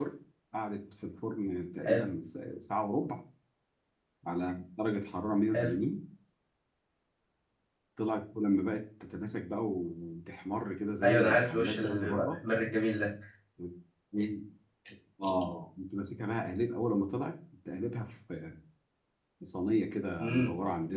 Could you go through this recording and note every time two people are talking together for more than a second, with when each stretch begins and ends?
11.0-12.4

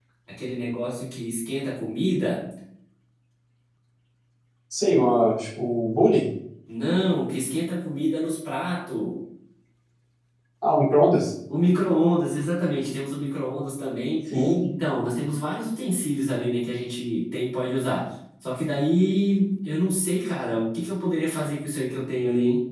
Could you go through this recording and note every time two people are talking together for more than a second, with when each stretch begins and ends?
none

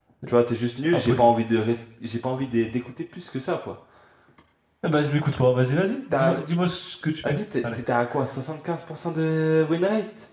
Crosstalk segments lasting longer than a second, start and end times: none

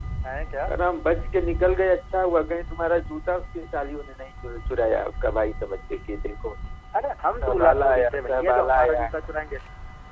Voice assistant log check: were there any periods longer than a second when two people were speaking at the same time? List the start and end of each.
7.4-9.1

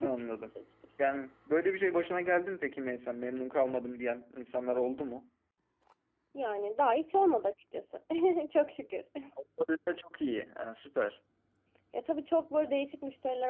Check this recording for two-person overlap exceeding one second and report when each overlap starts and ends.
none

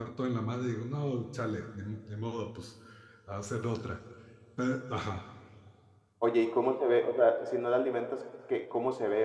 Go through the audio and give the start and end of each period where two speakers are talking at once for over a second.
none

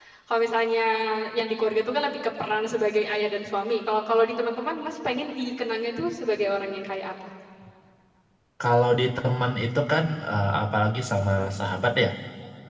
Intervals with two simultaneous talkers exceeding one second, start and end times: none

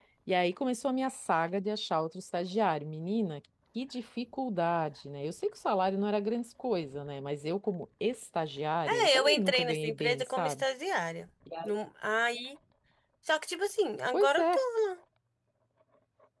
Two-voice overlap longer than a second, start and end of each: 8.9-10.6

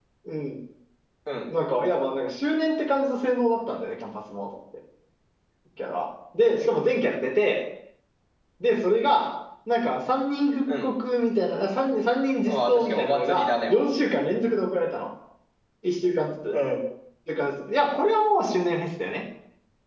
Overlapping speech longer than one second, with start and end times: 12.4-13.9

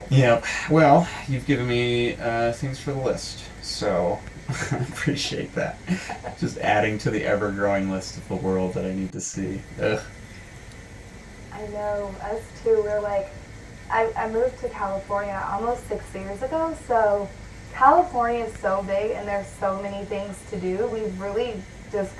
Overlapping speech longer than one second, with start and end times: none

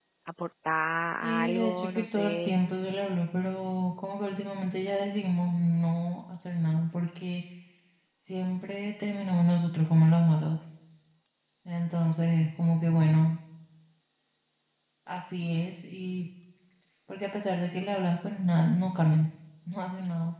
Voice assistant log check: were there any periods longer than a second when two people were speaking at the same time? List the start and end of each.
1.2-2.5

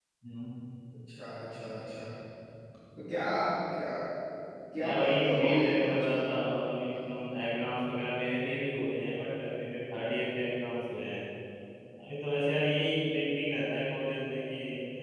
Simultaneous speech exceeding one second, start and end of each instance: 4.8-6.2

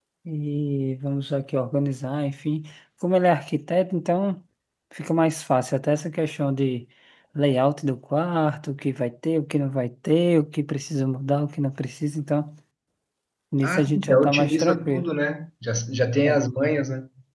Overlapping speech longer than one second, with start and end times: 13.6-15.1

